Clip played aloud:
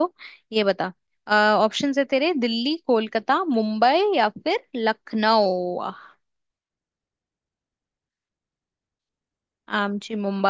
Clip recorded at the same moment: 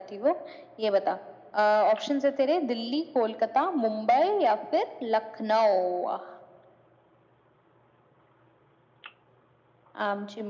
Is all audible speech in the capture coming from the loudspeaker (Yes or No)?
Yes